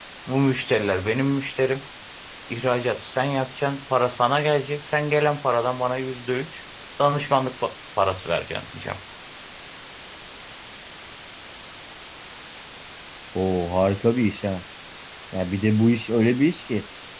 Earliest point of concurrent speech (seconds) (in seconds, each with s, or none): none